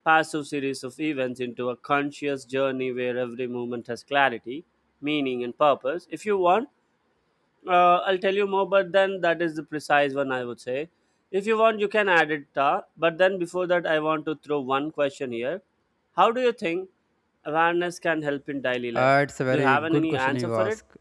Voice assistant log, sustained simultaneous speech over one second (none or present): present